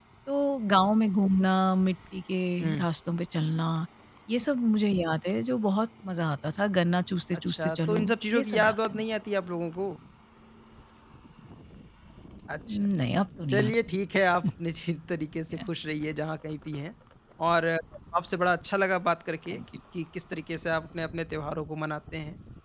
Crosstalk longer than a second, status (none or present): present